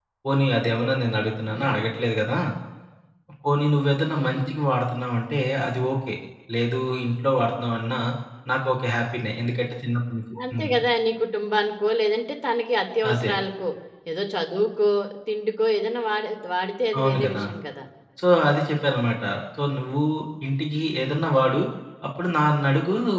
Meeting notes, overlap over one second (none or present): none